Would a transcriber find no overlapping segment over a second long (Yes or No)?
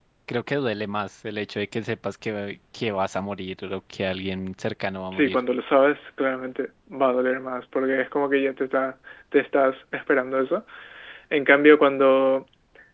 Yes